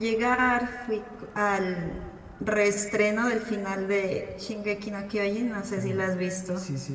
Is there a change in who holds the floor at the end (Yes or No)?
Yes